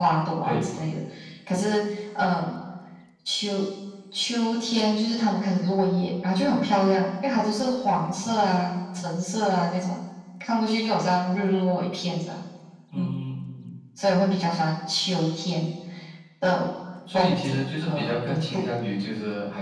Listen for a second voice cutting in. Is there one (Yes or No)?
Yes